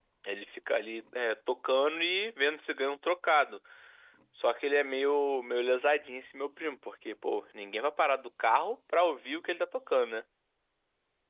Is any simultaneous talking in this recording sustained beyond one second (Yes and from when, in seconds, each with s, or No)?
No